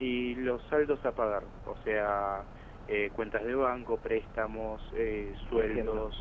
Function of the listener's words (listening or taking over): taking over